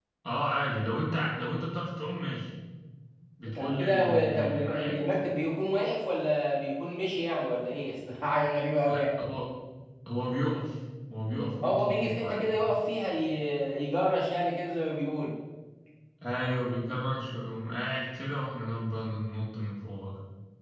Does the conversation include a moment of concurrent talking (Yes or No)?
Yes